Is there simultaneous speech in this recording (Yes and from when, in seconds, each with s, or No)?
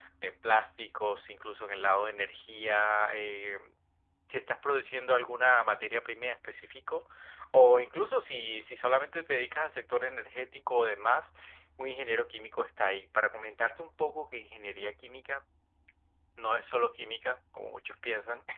No